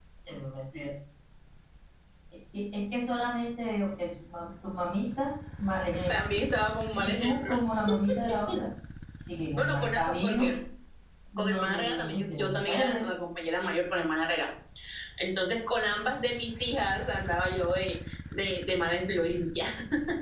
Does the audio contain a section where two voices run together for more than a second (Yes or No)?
Yes